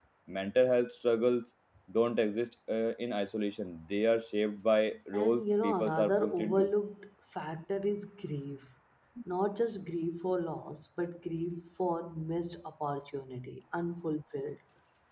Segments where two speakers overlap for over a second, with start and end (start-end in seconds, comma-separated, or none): 5.1-6.7